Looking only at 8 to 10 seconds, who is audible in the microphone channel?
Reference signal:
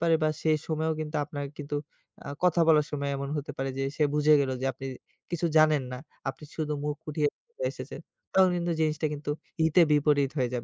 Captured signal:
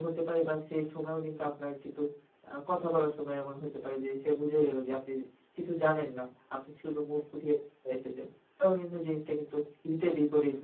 echo only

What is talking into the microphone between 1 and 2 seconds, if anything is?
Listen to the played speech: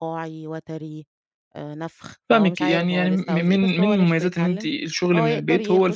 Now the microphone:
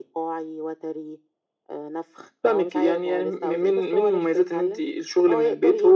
echo only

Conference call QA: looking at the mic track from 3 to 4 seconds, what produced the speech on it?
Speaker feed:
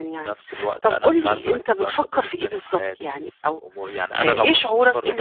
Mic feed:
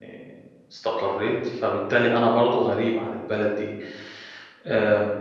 user only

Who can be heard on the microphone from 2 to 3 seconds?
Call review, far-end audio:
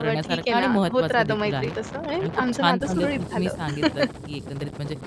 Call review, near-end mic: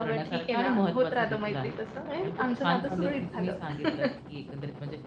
echo only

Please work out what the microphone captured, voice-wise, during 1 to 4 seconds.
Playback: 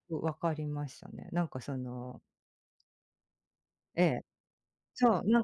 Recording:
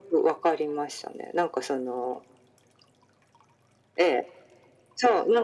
echo only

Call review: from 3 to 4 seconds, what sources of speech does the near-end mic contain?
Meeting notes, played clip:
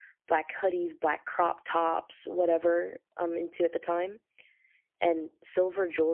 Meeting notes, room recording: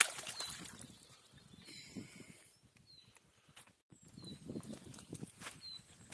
neither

